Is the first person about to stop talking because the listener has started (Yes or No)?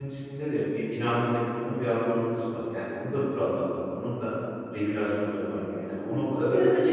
Yes